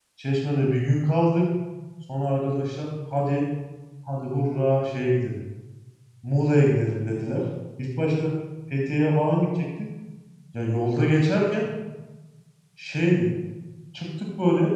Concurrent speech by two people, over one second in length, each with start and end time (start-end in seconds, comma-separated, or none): none